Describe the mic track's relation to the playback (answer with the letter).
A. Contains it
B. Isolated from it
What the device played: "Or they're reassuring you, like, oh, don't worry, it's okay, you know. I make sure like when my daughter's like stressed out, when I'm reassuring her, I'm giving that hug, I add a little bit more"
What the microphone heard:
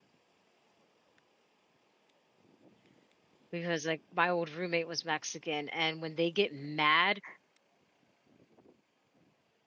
B